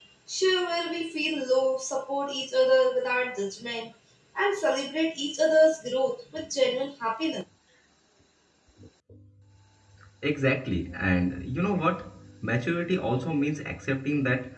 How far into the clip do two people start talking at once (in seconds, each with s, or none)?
none